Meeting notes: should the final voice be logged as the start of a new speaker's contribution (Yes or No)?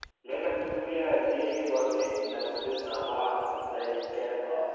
Yes